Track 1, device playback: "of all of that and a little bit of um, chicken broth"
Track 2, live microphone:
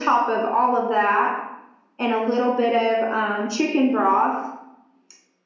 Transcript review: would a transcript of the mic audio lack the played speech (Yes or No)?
No